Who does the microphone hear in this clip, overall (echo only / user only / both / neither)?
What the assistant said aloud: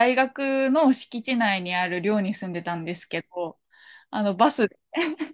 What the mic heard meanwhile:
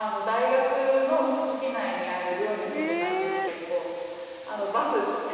both